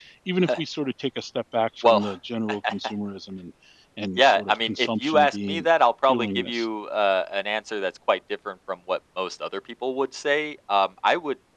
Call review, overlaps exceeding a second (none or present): present